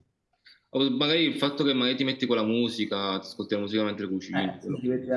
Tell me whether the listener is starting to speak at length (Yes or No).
Yes